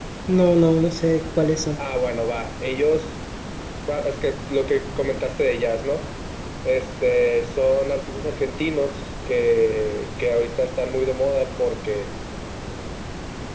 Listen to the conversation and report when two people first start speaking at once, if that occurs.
none

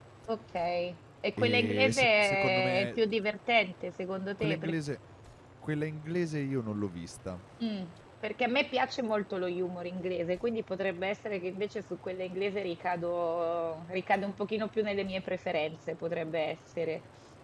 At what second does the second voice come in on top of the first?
1.4 s

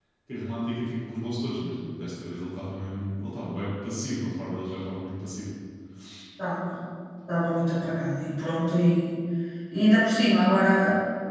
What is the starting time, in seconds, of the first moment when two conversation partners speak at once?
none

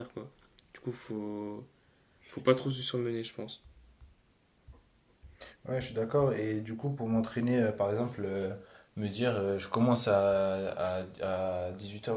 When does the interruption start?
none

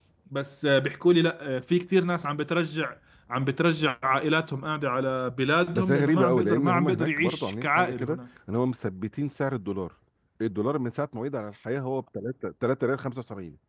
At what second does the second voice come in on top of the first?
5.7 s

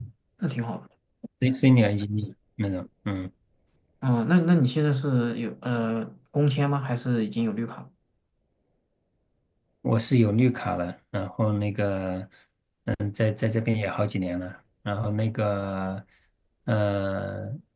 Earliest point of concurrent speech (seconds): none

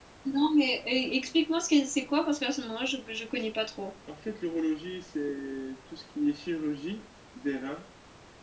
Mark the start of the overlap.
none

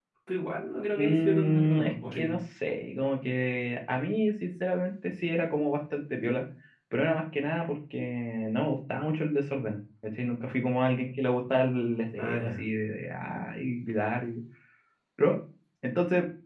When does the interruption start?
0.9 s

